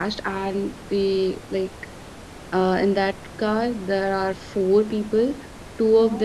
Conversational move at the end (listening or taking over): listening